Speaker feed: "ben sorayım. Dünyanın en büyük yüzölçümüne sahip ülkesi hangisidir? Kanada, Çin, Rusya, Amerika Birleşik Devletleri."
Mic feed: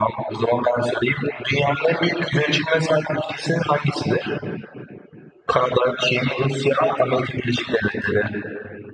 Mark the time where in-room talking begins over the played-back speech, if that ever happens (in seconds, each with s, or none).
none